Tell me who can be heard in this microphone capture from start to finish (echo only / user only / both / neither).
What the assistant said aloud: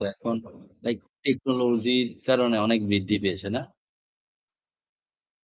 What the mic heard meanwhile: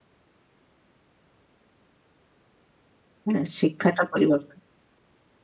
user only